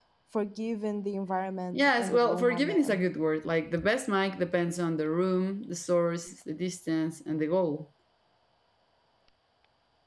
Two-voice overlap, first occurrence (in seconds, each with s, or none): 1.7 s